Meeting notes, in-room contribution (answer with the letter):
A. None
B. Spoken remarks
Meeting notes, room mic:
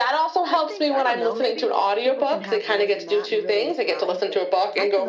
B